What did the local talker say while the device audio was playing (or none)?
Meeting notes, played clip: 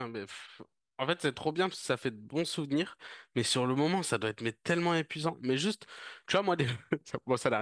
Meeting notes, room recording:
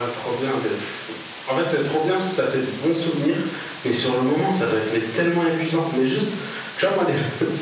none